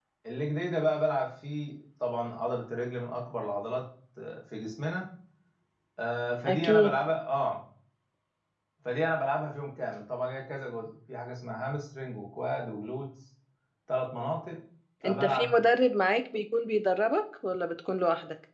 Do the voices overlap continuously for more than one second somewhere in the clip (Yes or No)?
No